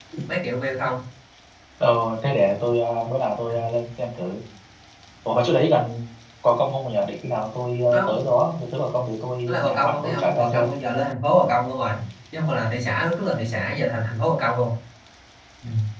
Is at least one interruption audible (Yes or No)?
Yes